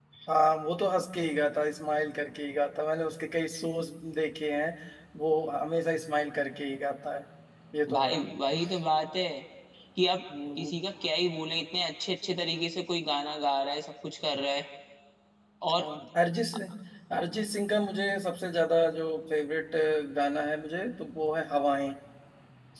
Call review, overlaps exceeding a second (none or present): none